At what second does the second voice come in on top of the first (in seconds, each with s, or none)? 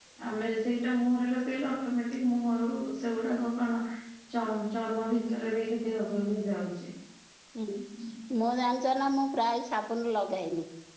none